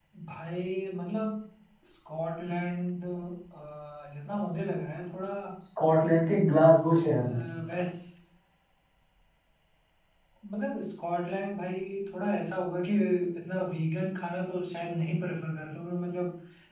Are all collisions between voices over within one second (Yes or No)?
Yes